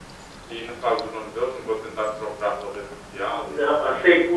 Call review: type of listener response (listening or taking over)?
taking over